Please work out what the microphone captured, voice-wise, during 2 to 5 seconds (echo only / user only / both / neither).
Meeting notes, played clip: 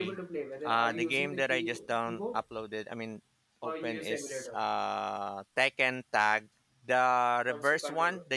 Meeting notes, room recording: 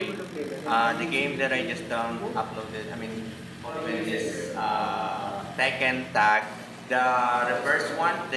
echo only